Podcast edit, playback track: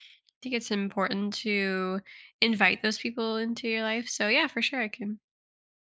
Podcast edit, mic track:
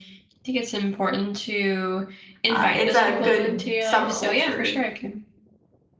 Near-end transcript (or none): Uh, it's a good subculture.